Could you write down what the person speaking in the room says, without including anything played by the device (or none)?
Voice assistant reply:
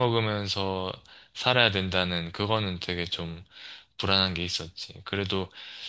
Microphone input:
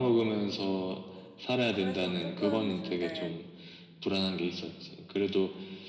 그래서 조금 힘들,